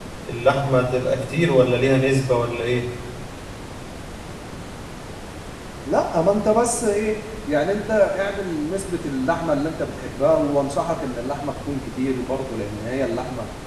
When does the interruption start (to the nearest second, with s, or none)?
none